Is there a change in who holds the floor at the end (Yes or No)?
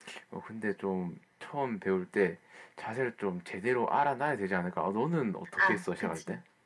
Yes